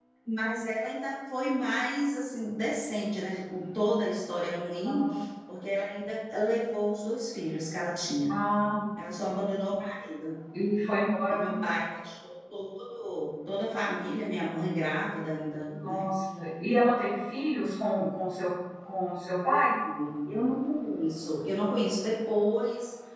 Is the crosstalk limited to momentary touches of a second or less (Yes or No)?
Yes